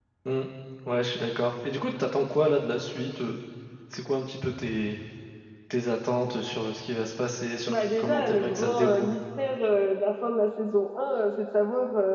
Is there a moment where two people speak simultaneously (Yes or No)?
Yes